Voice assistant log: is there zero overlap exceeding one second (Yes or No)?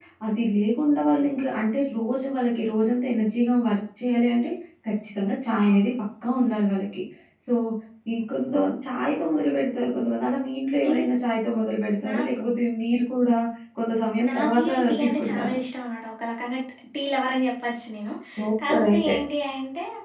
No